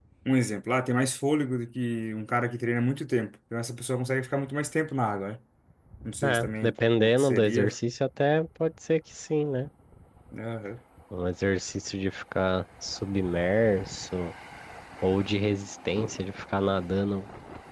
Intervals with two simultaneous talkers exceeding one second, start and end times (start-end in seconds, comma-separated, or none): 6.2-7.7